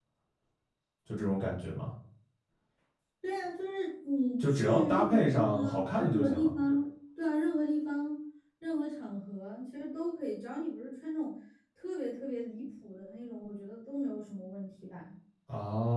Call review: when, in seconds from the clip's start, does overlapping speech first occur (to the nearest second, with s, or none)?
4 s